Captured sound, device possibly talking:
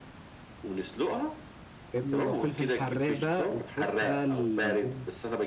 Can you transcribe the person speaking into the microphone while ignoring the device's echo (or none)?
فاهمني ولو فلفل حراق بقى وتحط بقى الدنيا